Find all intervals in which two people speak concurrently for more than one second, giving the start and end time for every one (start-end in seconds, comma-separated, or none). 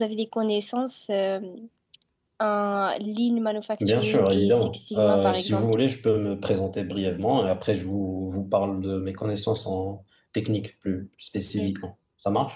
3.8-5.7